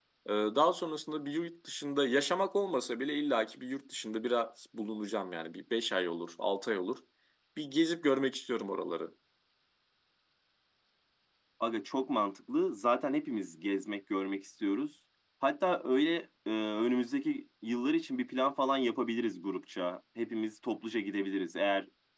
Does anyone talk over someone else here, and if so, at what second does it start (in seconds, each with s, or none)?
none